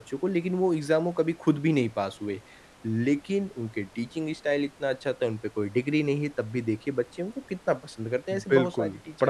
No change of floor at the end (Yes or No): No